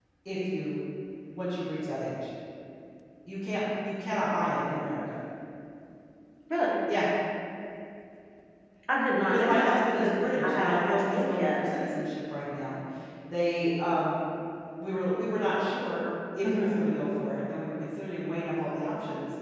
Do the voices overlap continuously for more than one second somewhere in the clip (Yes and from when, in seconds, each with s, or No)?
Yes, from 9.3 s